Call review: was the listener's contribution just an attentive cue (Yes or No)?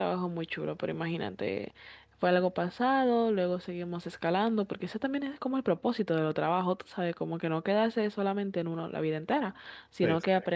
Yes